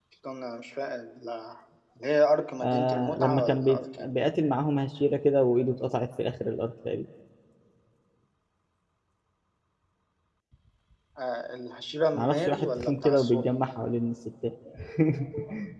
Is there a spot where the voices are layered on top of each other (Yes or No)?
Yes